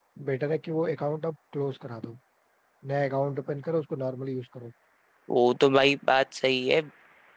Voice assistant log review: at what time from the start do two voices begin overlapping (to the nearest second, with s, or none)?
none